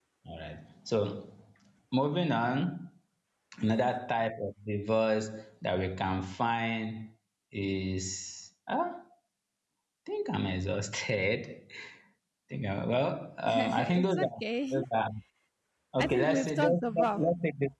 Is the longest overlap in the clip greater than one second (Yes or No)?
Yes